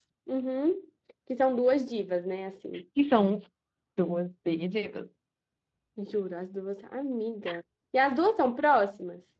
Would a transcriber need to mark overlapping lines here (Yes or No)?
No